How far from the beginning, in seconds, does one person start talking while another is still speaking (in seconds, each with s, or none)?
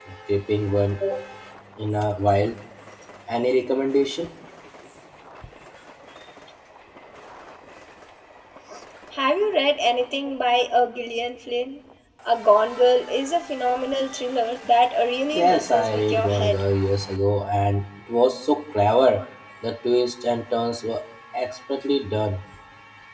15.3 s